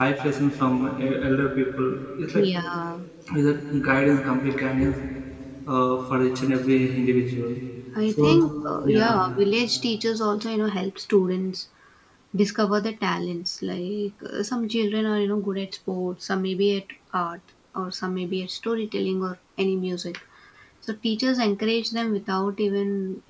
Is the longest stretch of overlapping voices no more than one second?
Yes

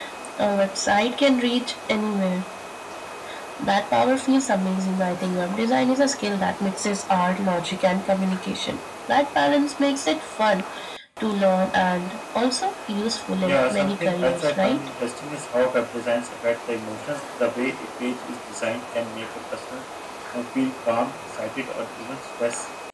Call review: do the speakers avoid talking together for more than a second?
No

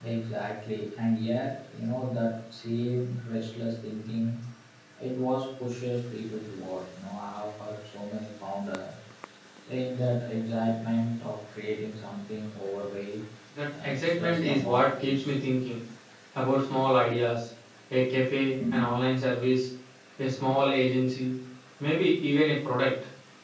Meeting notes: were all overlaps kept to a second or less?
No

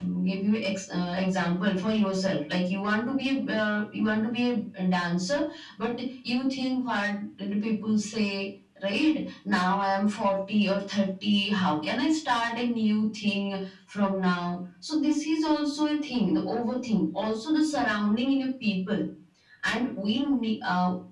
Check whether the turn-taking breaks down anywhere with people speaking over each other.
No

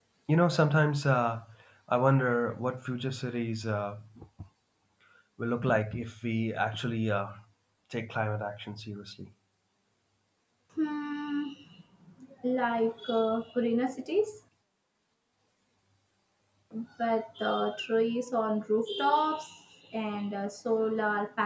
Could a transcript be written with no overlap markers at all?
Yes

